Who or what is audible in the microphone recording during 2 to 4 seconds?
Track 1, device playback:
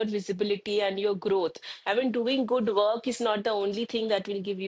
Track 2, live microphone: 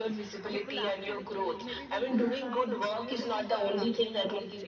both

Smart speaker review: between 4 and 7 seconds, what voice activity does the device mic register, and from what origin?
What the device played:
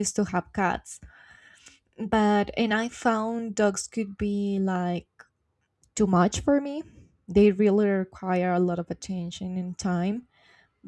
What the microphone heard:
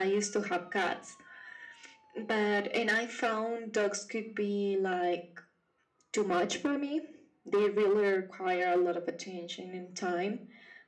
echo only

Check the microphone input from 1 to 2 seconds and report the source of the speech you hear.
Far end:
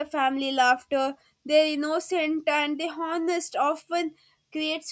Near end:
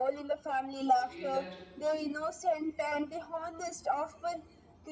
both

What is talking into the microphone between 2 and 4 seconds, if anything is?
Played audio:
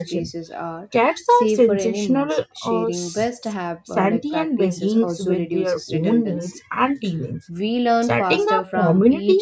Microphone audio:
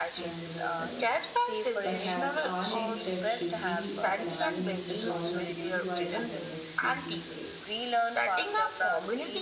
both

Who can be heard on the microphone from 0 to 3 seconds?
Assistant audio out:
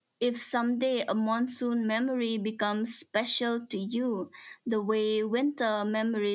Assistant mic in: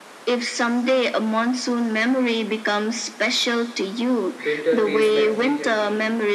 echo only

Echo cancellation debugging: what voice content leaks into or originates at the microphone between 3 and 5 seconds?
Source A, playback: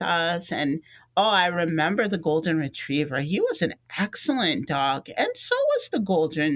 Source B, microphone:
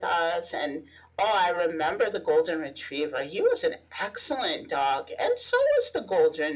echo only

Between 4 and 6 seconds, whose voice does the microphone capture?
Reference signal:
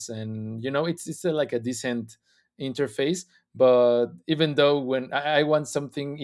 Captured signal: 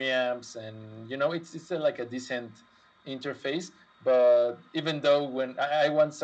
echo only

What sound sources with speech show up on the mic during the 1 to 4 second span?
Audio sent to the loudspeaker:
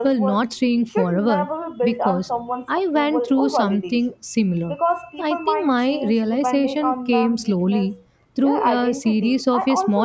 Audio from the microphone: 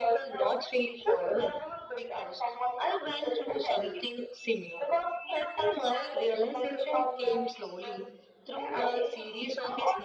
echo only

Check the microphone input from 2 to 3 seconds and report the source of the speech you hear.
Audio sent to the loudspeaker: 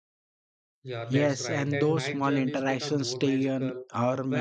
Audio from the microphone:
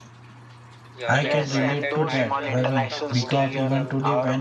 both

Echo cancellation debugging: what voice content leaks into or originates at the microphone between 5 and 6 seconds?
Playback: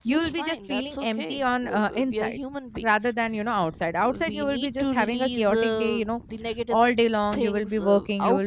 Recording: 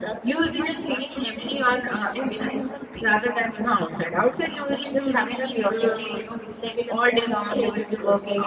echo only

